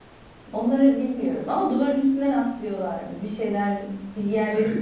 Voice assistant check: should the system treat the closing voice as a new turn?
Yes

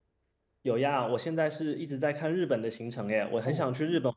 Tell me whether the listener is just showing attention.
No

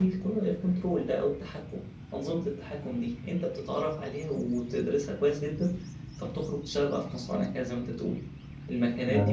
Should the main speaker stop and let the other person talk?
No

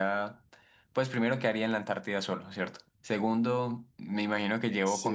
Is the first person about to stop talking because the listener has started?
No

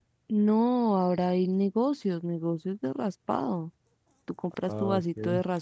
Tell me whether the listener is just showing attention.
Yes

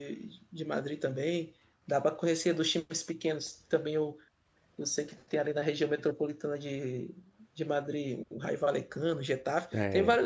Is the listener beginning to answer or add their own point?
No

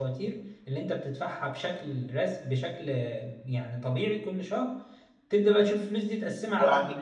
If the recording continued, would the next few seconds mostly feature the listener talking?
Yes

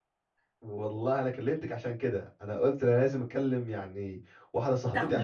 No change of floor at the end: Yes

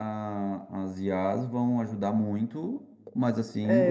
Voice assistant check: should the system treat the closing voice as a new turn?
Yes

